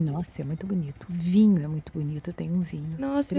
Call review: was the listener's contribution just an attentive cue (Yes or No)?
No